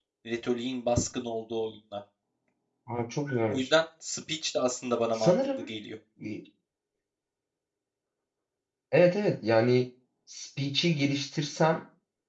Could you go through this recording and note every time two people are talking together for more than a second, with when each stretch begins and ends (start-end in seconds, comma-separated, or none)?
none